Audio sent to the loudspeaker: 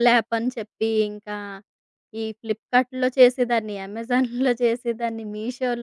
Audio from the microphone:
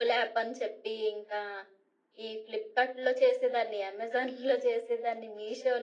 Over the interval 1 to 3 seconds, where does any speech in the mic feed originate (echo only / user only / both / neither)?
echo only